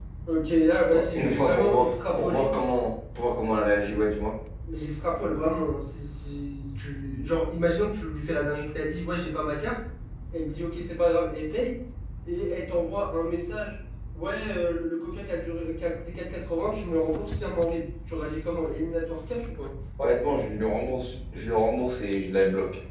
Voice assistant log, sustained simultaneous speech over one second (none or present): present